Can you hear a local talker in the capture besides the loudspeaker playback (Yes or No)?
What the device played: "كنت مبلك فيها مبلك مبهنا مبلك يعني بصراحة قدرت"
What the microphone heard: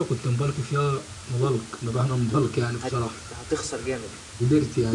Yes